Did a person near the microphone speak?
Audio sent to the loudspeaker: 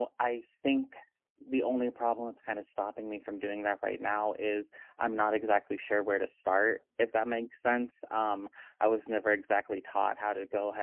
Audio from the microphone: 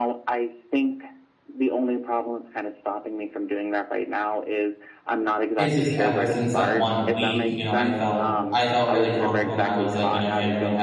Yes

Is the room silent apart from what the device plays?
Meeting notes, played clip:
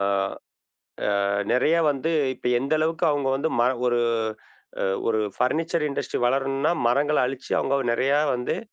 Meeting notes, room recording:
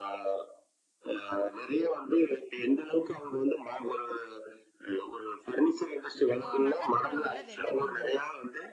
No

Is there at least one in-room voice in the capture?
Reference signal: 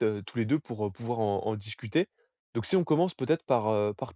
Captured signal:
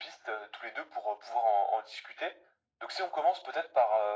No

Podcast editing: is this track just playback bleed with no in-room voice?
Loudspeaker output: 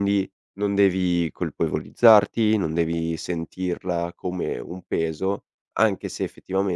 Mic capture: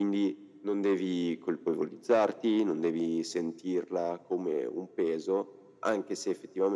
Yes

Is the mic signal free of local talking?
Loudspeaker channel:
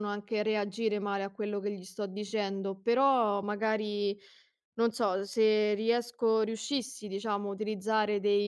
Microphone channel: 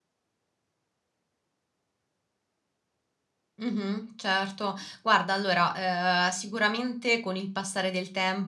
No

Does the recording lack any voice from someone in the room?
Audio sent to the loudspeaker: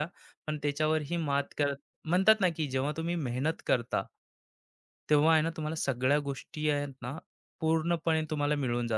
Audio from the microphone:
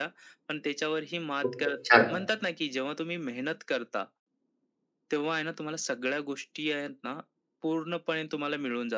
No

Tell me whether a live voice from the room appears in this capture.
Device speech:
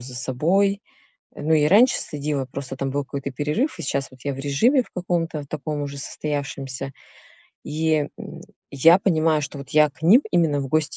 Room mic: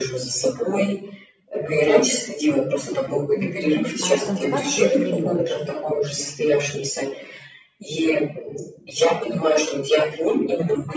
Yes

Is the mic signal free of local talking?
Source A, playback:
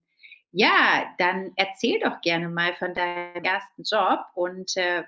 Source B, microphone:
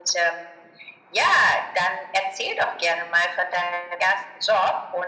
Yes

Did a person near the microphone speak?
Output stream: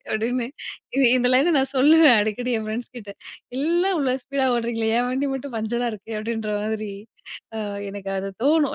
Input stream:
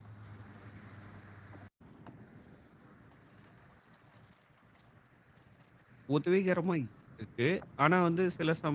Yes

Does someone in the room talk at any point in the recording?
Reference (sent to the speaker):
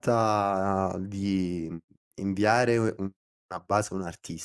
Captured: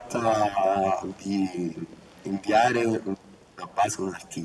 No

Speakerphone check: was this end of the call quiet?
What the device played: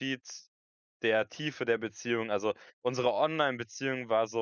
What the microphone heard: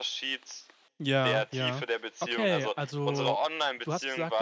No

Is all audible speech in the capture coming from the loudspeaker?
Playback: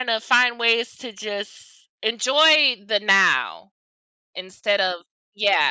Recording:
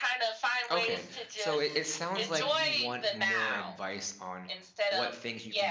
No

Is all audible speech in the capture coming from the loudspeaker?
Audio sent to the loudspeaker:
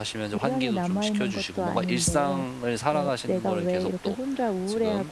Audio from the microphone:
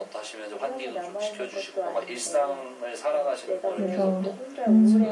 No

